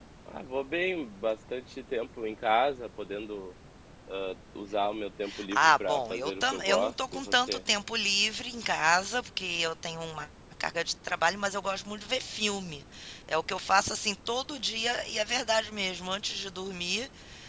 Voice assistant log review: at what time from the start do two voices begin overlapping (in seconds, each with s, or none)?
5.5 s